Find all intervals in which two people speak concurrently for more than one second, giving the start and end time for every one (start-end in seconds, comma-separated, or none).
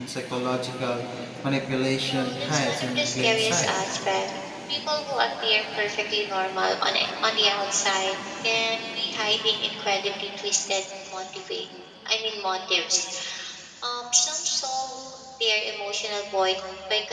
2.1-3.7